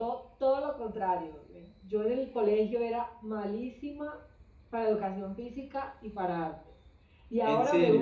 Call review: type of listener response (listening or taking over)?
listening